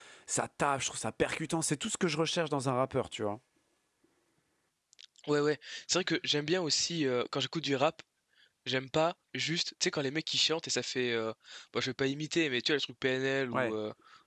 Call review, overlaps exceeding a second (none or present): none